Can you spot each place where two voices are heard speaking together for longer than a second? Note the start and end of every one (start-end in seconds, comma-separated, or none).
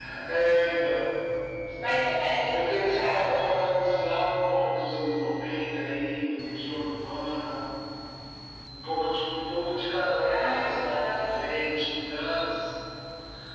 2.5-3.7, 10.2-11.5